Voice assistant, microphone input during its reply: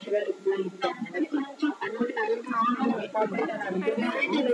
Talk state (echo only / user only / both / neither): both